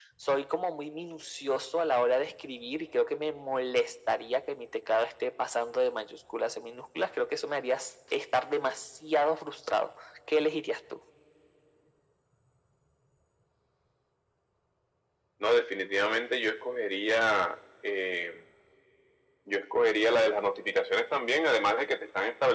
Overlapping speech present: No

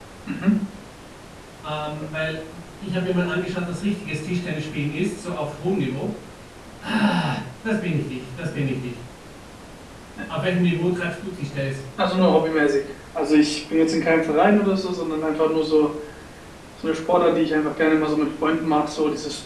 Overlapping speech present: No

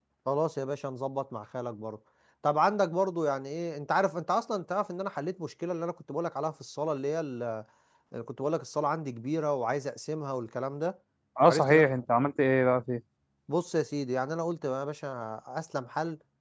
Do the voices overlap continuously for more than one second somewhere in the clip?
No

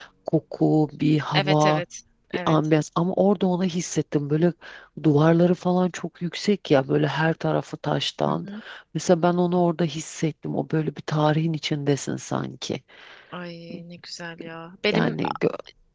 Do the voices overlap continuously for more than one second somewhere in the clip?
No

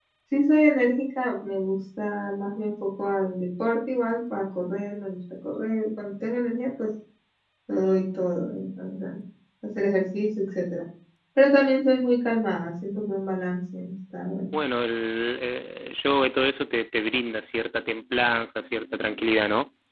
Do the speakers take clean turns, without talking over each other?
Yes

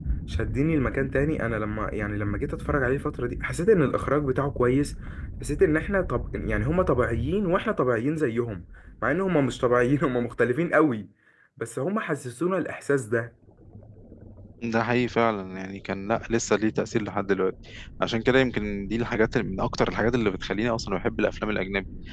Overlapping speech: No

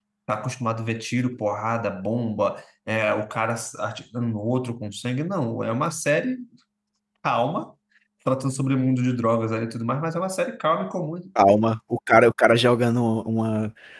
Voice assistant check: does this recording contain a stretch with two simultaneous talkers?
No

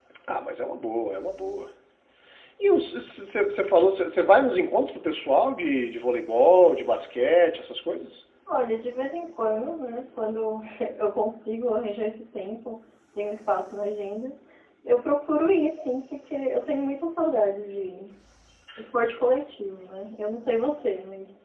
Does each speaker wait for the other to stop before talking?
Yes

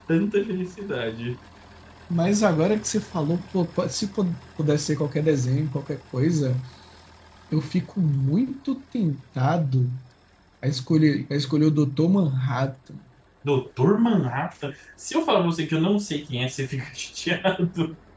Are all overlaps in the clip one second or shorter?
Yes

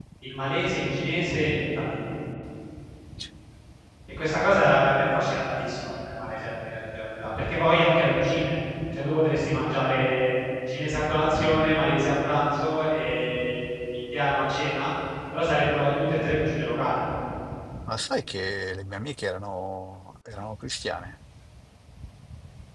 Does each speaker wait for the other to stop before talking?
Yes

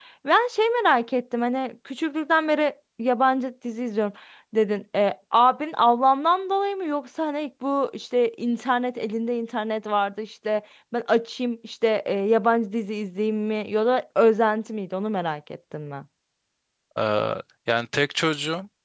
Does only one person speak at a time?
Yes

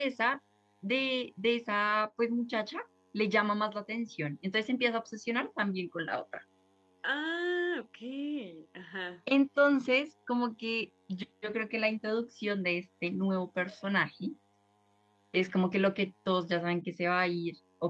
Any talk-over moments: No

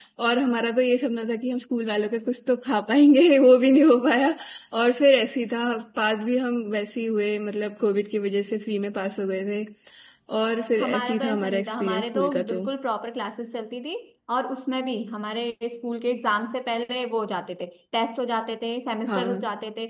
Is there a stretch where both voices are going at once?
Yes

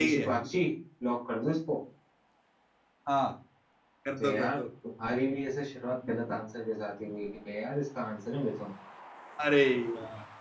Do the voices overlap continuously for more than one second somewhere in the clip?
No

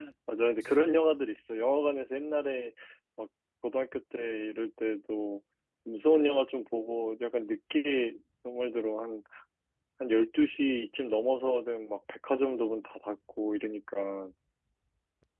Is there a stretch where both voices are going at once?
No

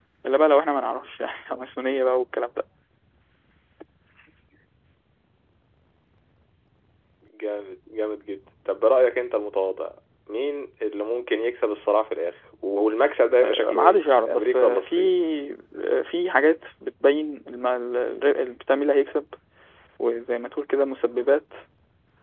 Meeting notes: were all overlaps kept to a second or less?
No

